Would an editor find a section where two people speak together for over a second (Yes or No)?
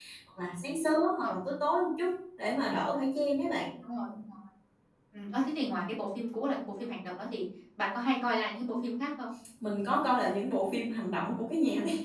No